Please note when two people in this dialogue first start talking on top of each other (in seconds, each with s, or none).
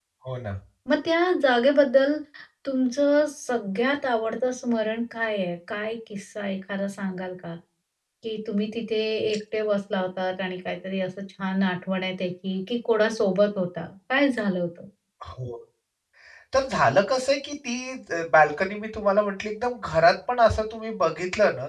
none